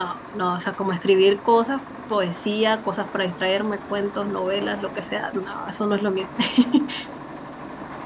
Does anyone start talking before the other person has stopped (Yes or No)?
No